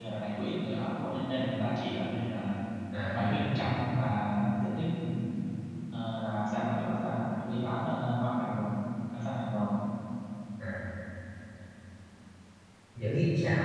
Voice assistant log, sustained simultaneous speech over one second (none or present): none